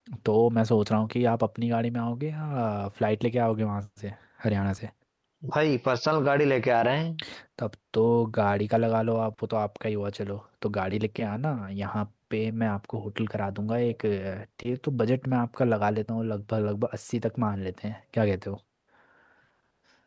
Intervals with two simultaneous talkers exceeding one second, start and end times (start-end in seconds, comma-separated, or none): none